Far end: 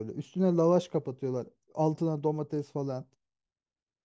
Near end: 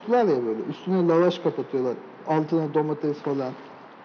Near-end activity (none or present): none